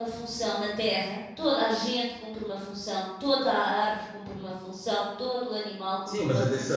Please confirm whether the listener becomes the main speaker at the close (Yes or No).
Yes